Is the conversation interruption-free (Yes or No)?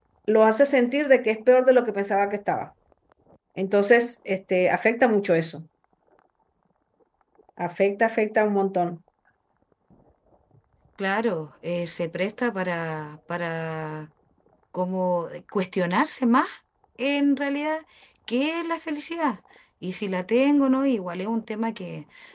Yes